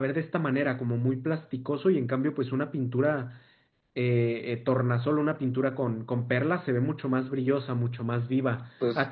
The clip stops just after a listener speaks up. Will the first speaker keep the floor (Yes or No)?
Yes